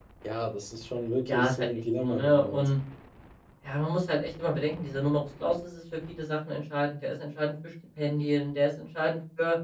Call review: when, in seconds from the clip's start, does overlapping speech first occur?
1 s

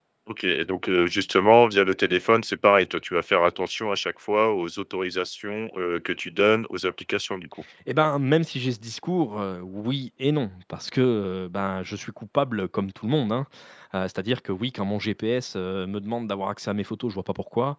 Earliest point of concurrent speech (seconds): none

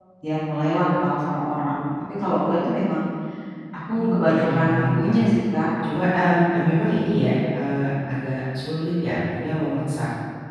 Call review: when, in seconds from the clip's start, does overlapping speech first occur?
4 s

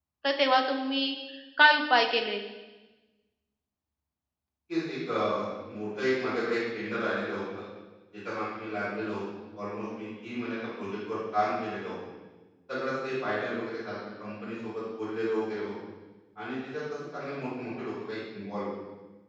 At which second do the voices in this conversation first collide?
none

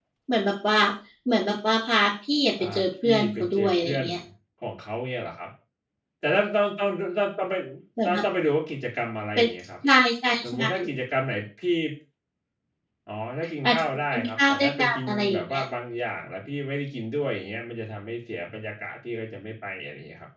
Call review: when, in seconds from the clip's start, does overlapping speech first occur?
3 s

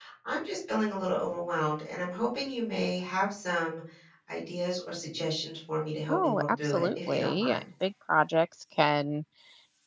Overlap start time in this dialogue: 6 s

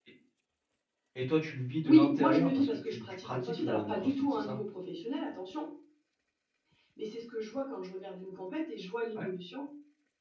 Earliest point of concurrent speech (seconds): 2 s

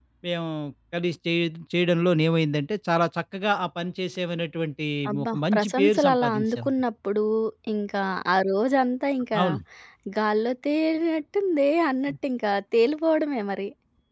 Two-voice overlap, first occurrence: 5 s

